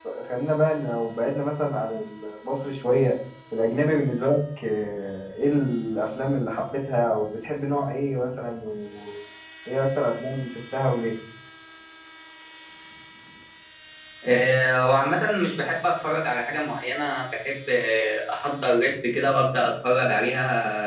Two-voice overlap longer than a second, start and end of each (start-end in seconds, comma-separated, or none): none